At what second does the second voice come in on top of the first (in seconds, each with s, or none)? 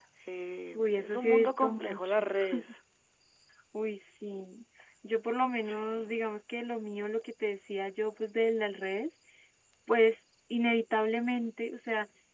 0.7 s